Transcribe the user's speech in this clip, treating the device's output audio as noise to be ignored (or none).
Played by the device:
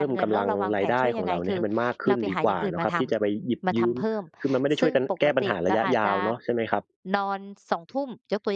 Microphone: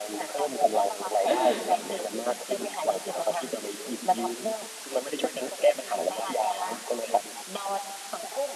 อืม